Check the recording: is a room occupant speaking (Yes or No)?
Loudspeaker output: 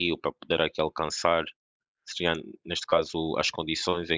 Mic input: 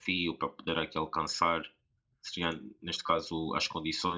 No